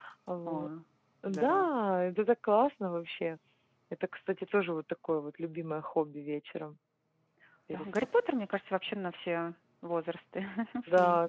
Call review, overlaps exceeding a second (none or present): none